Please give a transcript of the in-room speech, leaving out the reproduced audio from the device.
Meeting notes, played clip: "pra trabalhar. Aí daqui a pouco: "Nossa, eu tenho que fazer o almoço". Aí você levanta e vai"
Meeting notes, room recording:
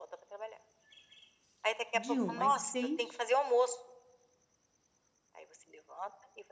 de 1h às 6h

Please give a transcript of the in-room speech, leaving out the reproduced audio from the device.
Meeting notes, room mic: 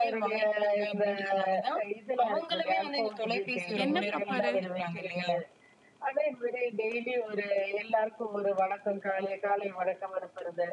என்ன பாப்பாரு?

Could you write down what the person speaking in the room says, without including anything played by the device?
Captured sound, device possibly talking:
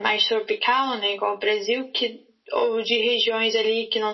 none

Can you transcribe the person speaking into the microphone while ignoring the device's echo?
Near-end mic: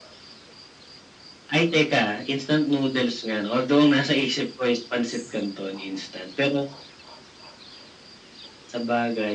none

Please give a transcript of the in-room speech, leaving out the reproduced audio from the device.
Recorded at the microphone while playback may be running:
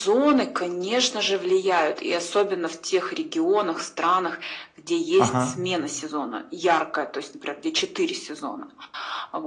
Ага.

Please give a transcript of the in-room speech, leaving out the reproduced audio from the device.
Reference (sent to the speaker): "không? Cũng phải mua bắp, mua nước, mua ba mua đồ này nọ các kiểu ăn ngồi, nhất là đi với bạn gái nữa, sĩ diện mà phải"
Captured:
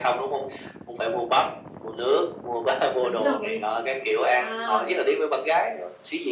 Đúng rồi. À!

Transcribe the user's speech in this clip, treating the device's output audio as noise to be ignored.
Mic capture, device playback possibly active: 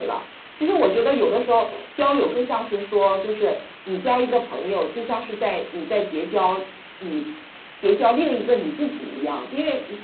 none

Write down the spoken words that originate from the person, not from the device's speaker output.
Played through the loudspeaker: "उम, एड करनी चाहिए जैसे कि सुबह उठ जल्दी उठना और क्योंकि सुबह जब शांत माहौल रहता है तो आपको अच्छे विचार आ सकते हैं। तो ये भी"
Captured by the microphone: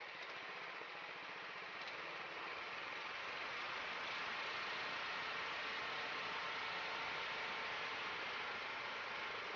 none

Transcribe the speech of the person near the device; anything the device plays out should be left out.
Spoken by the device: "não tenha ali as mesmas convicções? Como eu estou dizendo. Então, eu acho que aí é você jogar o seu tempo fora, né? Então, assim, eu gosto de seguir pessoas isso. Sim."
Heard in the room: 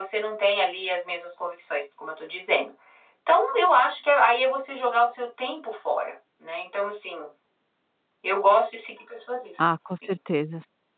Ah, com certezas.

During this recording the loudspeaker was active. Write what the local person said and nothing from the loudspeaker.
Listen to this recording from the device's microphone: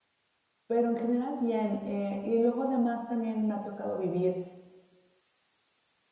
pero en general, bien. Eh, y luego, además también me ha tocado vivir

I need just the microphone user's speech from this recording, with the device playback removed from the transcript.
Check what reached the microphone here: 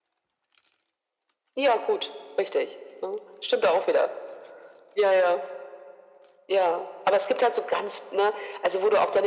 none

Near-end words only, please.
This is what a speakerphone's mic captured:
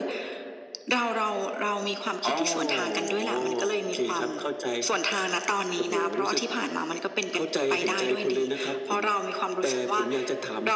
none

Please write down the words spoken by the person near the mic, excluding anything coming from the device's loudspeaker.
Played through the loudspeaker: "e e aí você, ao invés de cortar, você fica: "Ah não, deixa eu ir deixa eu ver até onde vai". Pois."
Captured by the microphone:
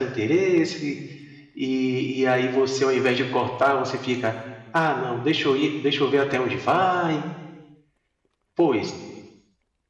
none

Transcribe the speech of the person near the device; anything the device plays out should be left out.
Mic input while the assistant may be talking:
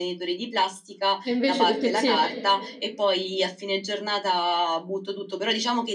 E invece tutto insieme?

